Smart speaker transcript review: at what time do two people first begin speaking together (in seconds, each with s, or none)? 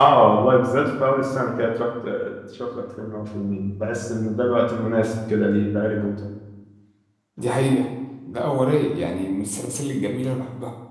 none